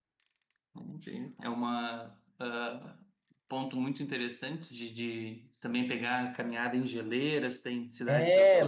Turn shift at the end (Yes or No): Yes